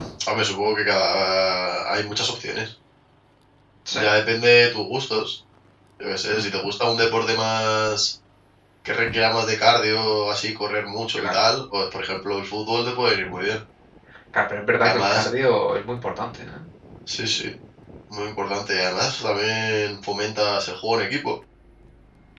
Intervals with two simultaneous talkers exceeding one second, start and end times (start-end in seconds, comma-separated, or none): none